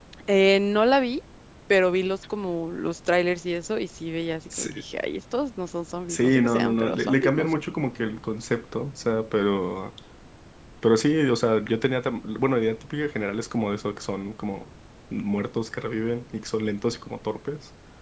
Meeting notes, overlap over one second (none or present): present